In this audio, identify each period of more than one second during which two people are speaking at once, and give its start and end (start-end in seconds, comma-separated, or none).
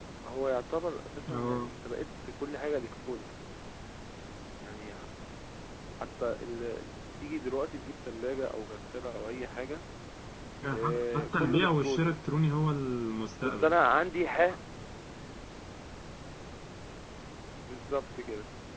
10.7-12.1